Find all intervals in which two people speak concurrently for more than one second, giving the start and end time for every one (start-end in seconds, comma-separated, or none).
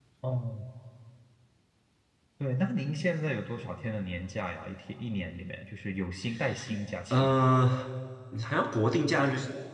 none